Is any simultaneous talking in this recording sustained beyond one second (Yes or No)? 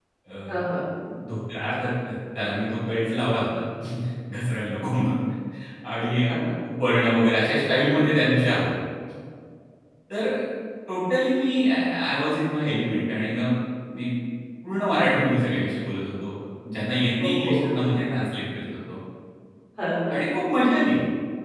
No